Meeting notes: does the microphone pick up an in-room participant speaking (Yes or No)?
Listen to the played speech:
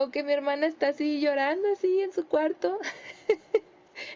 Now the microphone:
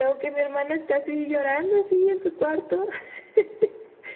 No